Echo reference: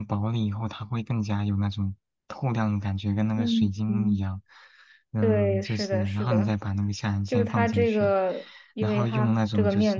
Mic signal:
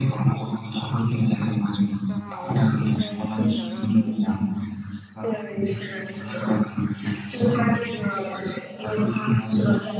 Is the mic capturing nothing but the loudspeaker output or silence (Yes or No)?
No